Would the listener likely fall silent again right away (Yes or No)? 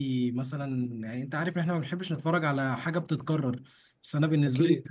Yes